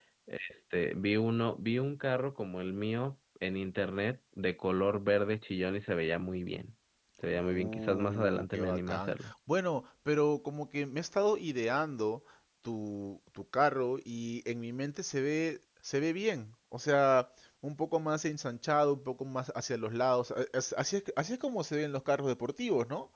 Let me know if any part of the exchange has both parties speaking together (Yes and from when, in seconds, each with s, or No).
Yes, from 7.3 s